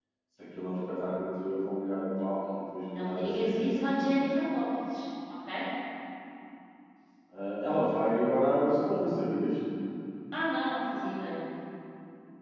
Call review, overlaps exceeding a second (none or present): present